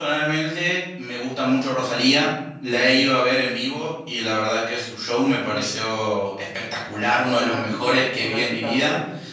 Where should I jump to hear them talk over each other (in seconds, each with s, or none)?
7.0 s